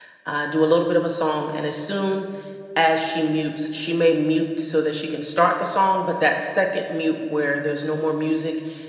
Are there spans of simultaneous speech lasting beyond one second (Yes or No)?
No